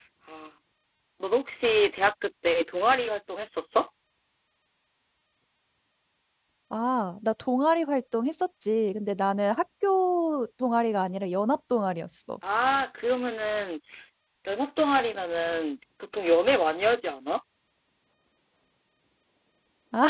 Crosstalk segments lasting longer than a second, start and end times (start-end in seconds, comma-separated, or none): none